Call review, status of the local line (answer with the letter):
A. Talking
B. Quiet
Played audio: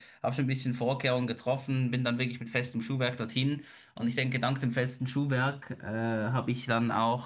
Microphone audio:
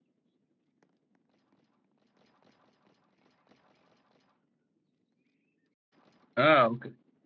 A